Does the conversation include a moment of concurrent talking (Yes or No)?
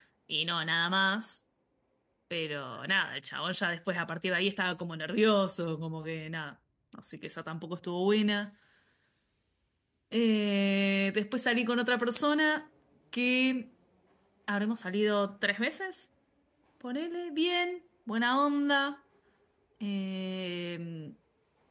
No